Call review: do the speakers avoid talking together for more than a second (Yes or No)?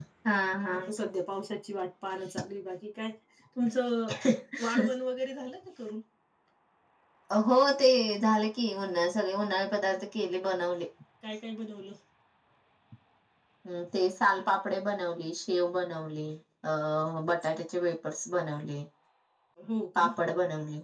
Yes